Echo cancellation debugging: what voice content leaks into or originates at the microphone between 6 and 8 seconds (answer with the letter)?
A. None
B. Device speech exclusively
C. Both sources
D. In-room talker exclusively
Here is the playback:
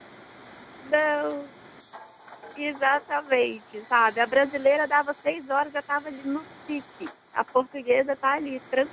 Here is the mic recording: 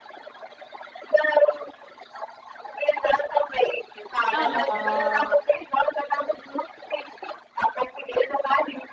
B